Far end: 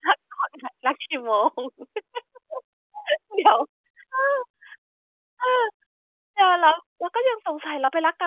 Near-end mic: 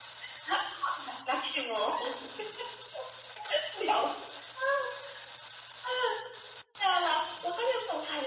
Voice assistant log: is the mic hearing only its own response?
Yes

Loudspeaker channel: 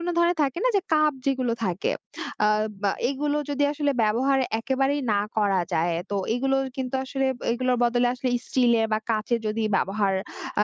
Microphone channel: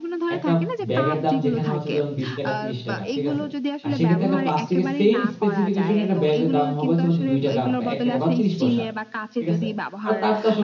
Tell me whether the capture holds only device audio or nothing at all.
No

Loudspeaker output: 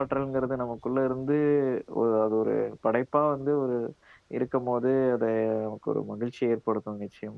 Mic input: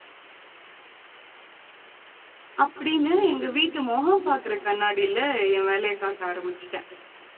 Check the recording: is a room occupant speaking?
Yes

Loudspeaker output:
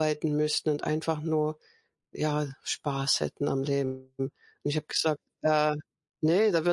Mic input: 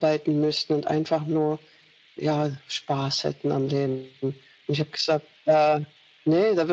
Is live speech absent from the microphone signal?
Yes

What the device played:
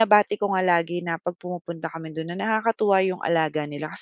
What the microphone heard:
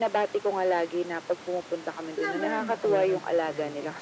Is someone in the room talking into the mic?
Yes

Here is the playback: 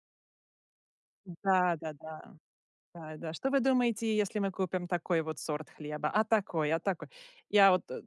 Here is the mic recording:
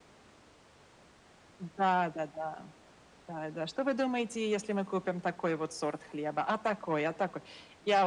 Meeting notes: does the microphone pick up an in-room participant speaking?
No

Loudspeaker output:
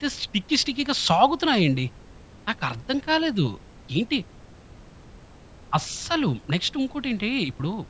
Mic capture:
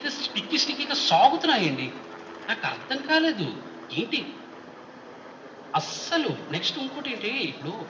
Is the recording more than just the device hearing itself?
No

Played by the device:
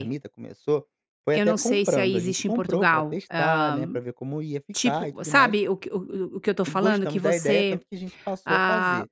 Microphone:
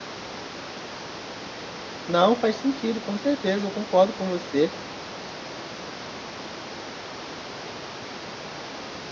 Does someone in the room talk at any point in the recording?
Yes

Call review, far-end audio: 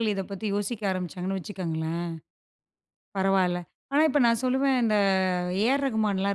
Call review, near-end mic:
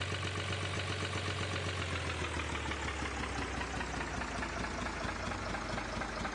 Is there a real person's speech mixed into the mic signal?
No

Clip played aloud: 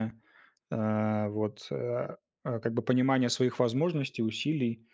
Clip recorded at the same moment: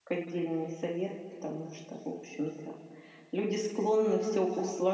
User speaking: Yes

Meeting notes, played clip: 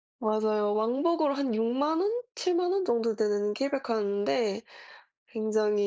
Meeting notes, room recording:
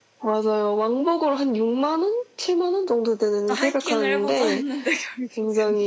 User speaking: Yes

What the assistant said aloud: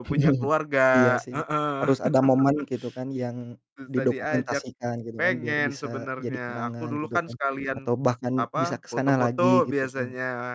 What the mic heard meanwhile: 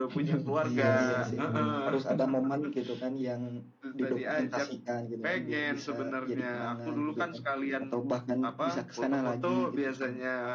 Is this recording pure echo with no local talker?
No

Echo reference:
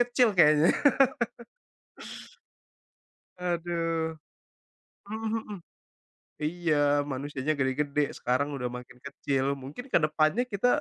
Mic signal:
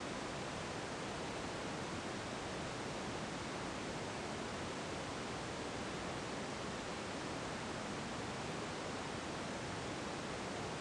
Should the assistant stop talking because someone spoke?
No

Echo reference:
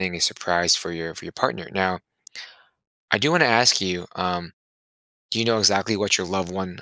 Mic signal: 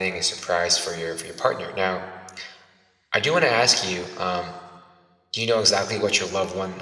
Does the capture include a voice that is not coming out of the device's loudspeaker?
No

